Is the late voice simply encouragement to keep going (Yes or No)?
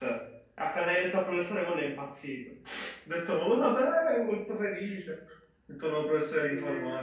No